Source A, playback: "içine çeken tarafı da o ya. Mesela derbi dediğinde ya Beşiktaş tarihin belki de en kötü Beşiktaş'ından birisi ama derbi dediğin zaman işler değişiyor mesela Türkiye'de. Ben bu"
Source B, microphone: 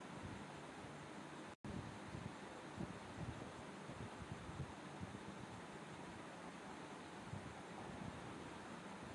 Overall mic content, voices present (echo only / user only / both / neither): neither